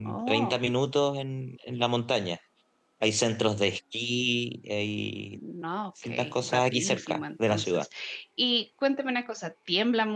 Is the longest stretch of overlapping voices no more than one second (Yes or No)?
No